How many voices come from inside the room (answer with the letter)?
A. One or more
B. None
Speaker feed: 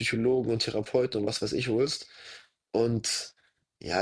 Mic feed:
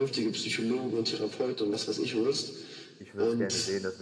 A